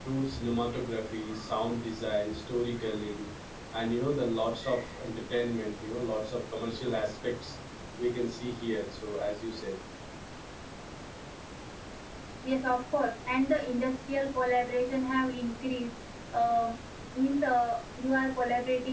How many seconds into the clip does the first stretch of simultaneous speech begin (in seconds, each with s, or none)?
none